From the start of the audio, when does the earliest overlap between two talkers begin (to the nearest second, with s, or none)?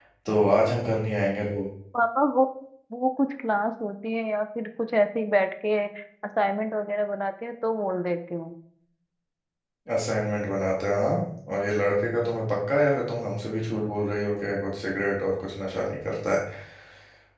none